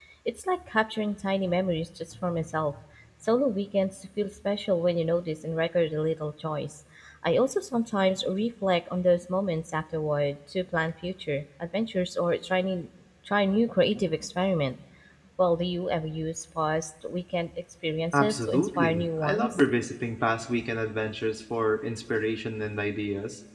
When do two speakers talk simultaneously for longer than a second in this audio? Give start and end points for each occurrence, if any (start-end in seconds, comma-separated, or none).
18.1-19.6